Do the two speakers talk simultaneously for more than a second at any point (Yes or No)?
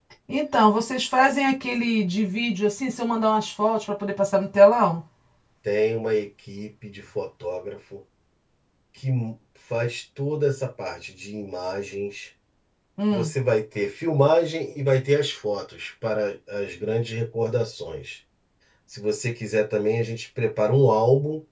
No